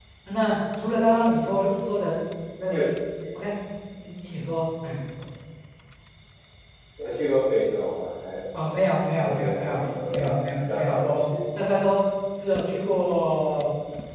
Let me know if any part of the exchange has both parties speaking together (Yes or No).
Yes